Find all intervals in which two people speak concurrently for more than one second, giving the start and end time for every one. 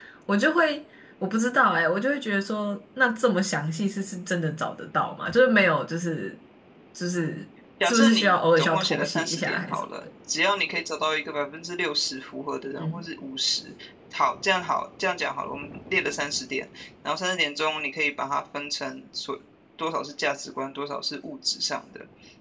7.8-9.8

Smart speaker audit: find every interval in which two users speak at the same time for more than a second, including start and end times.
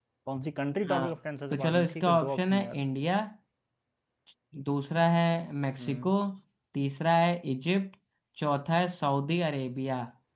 1.5-2.8

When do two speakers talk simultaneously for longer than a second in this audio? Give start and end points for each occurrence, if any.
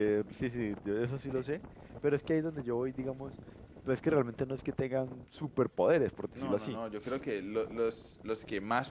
none

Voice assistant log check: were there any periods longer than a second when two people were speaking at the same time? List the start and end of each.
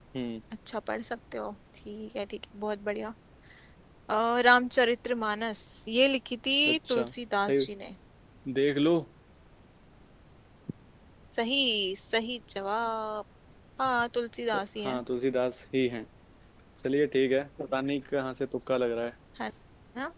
none

